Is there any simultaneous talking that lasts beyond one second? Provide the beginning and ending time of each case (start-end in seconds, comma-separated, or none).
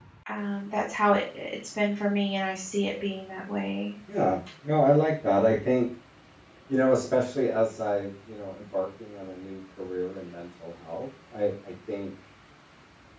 none